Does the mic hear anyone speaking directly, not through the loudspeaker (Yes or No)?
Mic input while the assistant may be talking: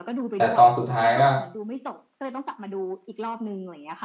Yes